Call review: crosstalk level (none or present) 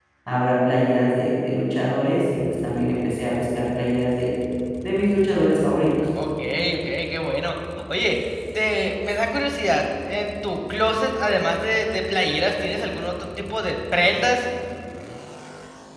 none